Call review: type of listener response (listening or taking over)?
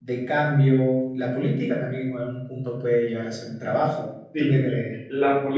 taking over